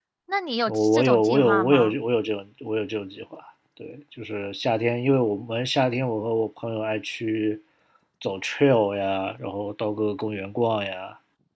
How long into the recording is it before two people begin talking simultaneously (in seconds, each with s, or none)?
0.7 s